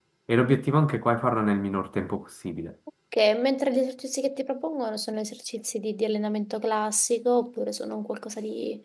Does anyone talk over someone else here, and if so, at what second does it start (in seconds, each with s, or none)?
none